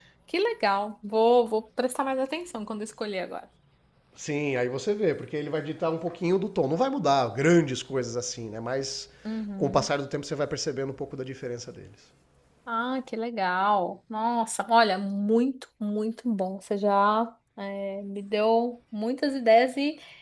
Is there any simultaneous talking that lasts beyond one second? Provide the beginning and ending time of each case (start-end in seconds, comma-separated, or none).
none